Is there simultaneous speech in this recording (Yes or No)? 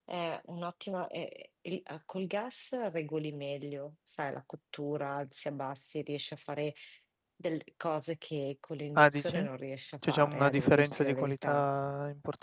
Yes